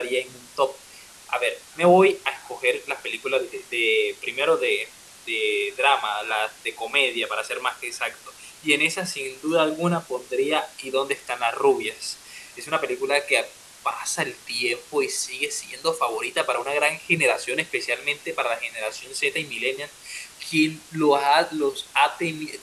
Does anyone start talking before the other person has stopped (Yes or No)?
No